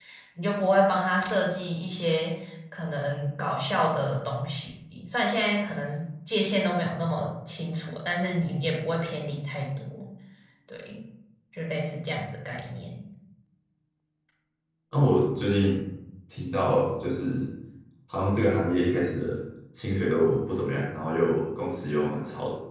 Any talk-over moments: No

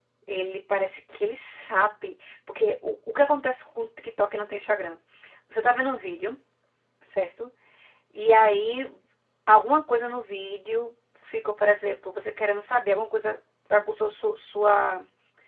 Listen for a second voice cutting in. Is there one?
No

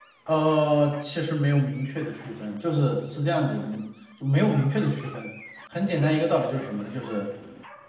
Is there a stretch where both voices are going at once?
No

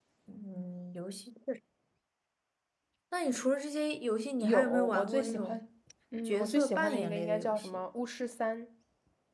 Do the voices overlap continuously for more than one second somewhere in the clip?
Yes, from 4.4 s

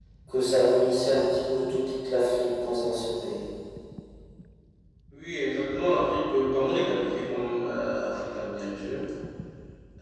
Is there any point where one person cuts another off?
No

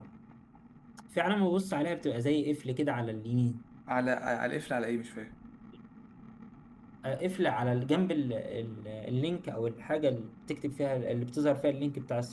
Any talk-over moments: No

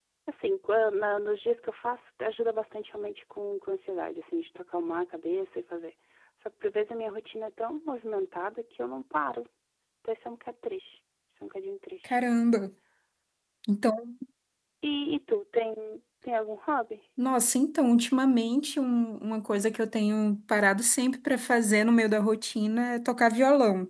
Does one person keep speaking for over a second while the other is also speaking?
No

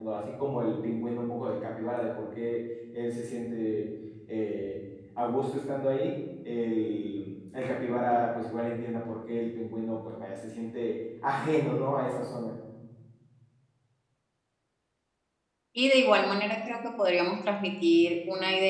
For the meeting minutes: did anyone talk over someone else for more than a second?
No

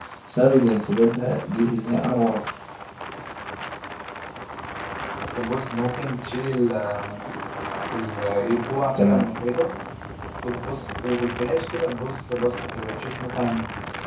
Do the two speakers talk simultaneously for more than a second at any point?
No

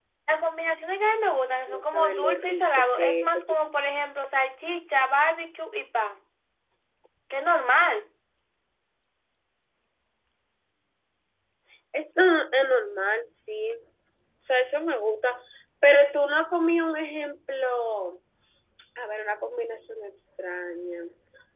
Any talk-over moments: Yes, from 1.7 s

